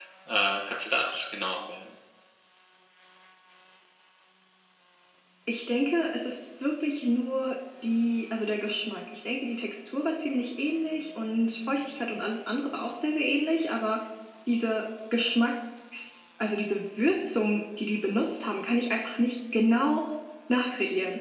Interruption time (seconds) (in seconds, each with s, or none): none